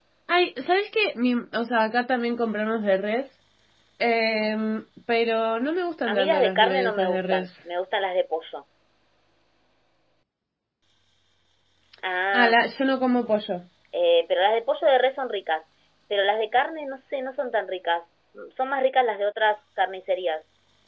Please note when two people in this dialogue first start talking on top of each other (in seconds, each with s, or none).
6.0 s